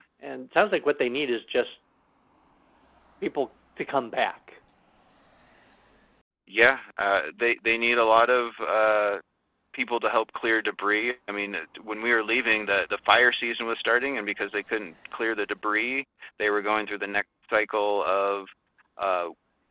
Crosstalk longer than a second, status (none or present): none